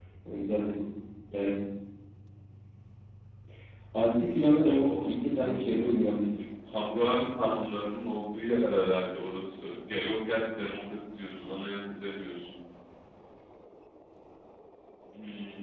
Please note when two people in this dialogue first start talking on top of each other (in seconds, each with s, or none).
4.6 s